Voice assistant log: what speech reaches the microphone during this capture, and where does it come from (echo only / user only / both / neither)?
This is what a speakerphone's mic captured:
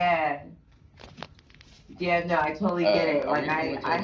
both